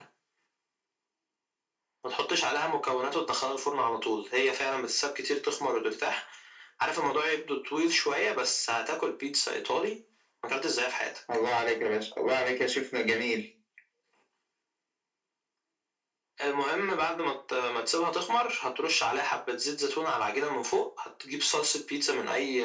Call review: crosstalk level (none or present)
none